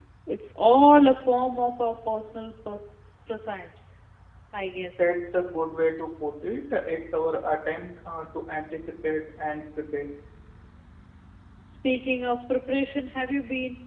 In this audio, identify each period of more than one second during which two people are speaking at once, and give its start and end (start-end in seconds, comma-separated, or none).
none